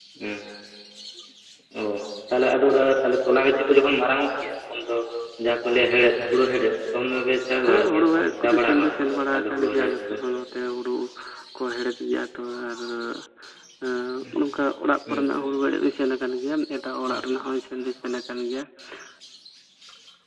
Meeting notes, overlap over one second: present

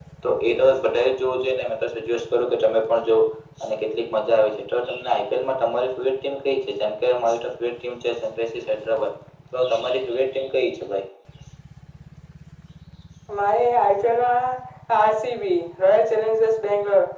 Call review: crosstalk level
none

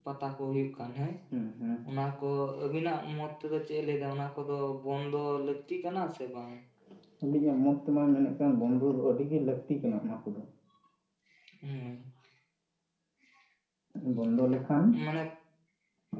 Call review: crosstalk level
none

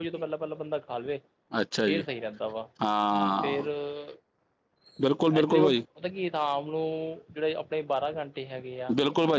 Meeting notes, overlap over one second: none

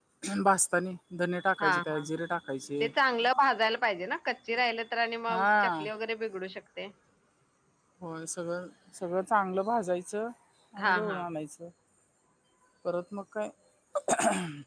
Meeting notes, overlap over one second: none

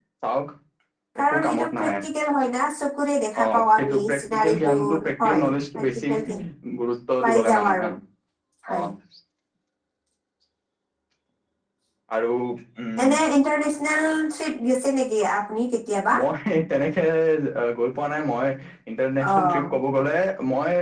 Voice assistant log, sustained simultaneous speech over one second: present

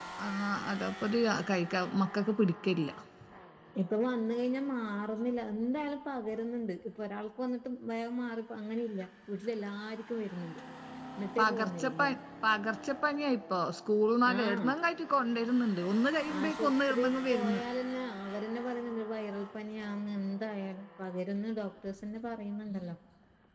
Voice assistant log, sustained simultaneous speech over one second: present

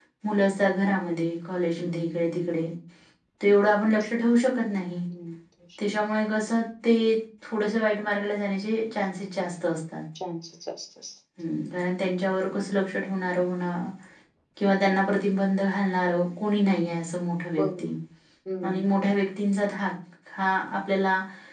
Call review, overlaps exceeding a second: none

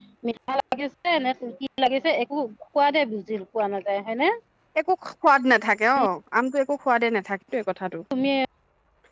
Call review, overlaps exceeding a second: none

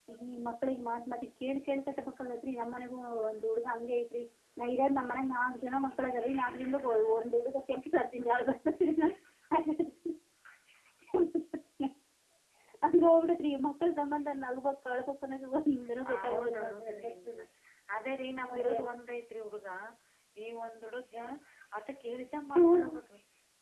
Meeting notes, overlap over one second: present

